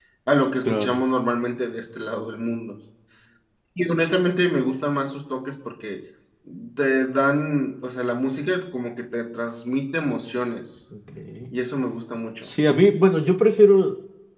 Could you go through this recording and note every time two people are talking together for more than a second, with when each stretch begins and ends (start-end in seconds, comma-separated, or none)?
none